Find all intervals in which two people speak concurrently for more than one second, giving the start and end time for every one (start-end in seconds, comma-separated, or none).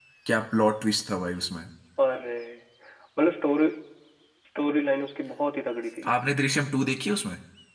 none